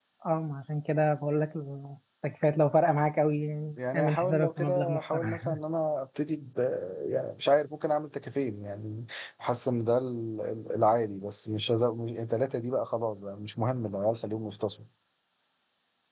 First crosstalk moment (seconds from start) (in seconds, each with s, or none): 3.8 s